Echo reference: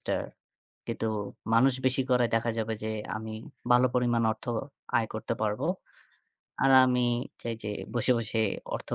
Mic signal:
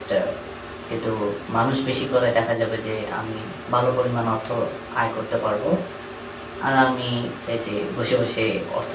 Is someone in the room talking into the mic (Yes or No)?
No